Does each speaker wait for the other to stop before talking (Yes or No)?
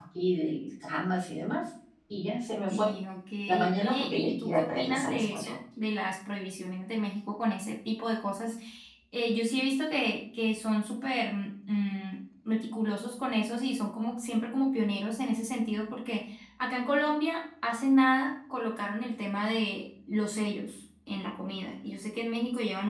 No